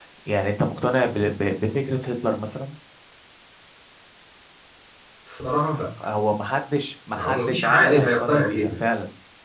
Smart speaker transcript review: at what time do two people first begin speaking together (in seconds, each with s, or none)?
7.1 s